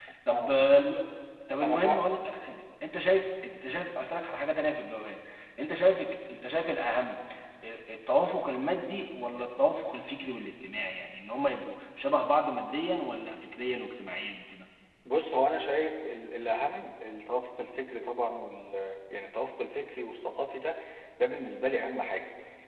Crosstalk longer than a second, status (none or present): none